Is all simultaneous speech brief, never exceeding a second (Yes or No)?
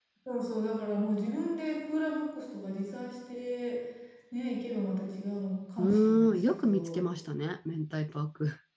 No